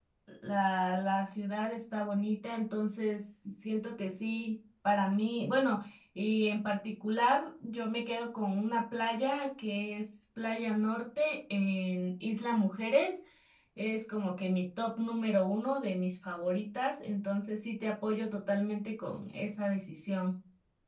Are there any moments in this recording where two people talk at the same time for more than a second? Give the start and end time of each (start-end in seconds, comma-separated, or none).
none